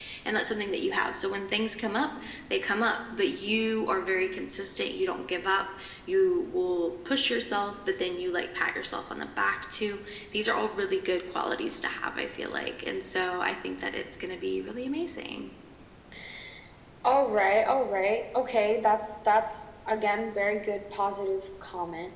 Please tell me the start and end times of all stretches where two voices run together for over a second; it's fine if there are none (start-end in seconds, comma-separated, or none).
none